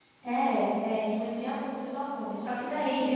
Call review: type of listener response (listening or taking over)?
listening